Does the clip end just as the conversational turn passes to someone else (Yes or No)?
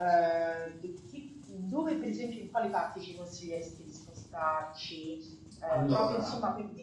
No